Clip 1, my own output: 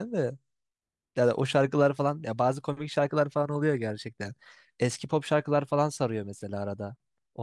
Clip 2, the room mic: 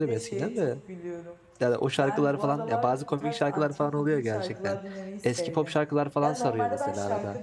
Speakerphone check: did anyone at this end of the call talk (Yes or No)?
Yes